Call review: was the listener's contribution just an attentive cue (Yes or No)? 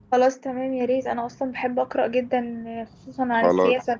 No